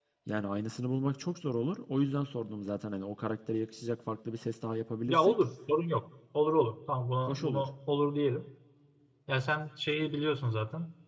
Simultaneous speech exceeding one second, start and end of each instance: none

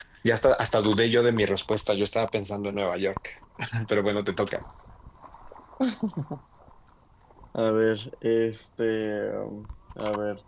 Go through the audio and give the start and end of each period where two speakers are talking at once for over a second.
none

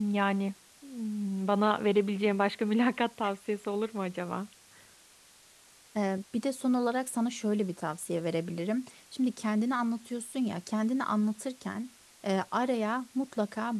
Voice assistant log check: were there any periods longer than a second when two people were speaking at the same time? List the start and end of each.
none

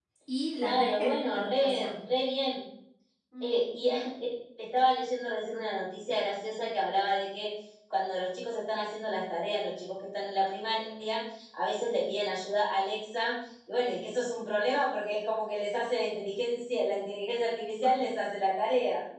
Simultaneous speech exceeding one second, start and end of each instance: 0.5-1.9

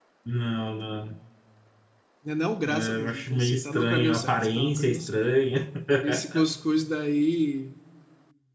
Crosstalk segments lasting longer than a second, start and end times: 2.7-5.2

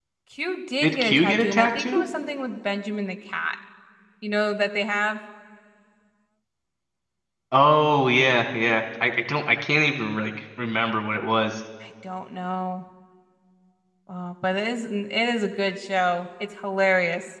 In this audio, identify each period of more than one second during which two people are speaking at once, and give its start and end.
0.8-2.1

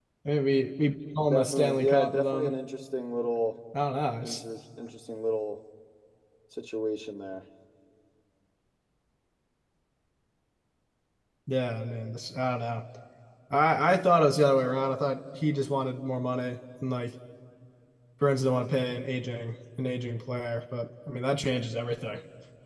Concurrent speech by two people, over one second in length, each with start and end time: 1.3-2.5

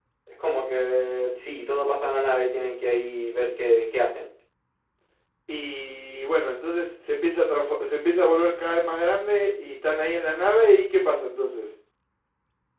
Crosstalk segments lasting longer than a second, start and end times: none

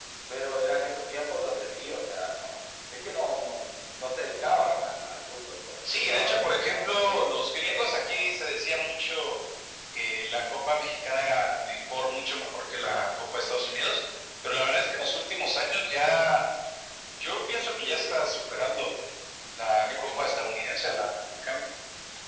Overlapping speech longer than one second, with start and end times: 6.0-8.5

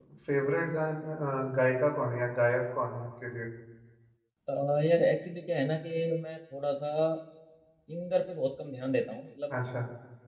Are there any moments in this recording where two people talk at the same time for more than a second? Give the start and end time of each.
none

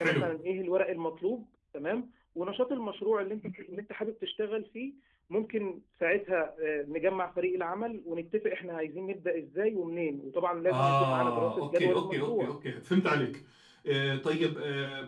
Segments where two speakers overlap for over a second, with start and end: 10.7-12.5

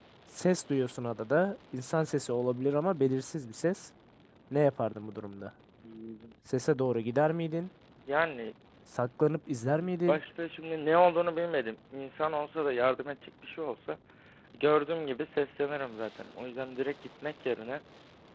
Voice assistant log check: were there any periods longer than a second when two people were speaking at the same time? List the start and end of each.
none

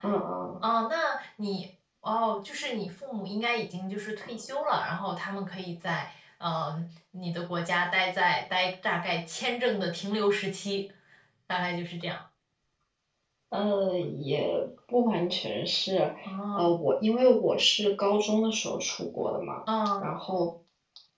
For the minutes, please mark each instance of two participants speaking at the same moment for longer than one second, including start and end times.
none

